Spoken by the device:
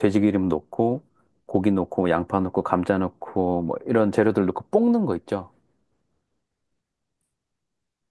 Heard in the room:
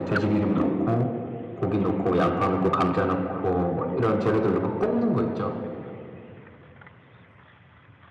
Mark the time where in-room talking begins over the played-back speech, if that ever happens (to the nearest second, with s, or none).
none